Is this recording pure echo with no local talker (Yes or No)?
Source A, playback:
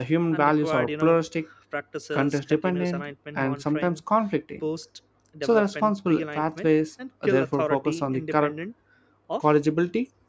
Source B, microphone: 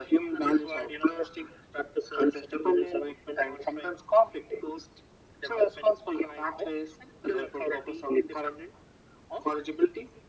Yes